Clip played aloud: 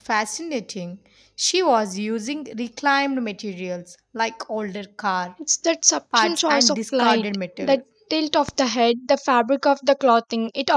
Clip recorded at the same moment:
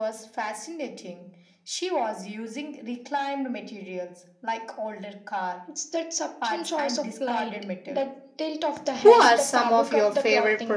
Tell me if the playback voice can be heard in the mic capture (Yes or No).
Yes